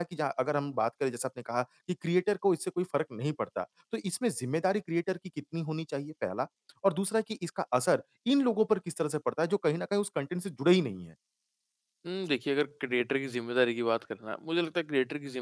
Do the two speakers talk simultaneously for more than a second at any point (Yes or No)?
No